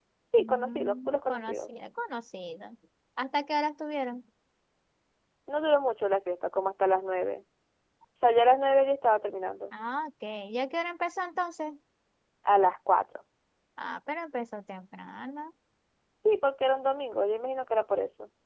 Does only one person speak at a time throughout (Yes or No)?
No